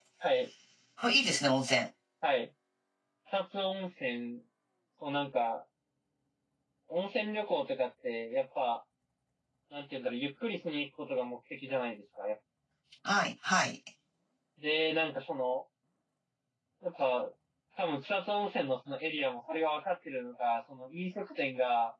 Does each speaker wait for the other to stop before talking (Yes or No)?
Yes